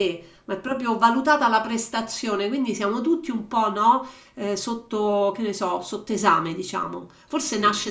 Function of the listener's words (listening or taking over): listening